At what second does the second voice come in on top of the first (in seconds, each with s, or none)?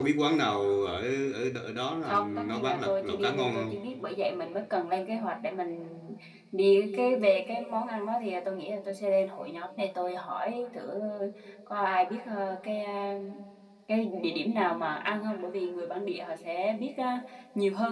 2.0 s